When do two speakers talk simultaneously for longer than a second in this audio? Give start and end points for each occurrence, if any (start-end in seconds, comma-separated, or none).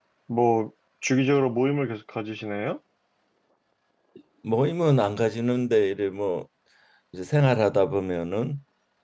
none